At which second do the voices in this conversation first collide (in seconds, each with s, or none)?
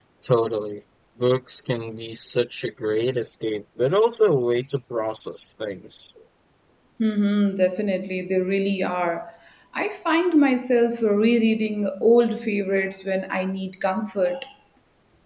none